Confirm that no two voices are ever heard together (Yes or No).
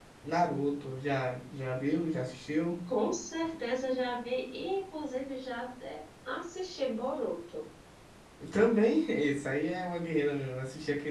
Yes